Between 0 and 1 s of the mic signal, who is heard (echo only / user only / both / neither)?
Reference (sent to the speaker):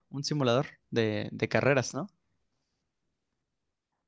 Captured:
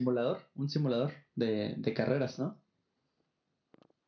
echo only